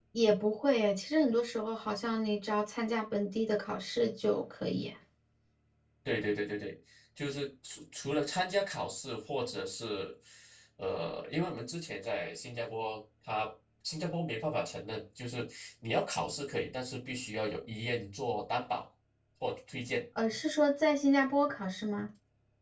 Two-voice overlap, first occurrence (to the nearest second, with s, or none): none